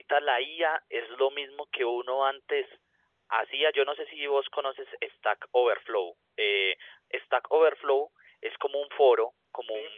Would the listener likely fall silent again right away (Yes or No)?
Yes